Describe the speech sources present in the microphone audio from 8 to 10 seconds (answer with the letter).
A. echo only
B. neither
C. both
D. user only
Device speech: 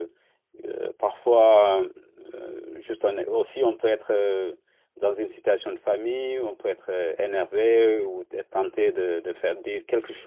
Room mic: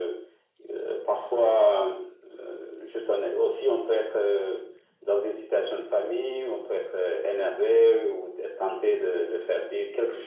A